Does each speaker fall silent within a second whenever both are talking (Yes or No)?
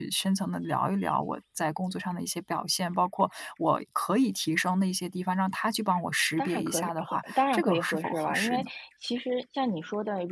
No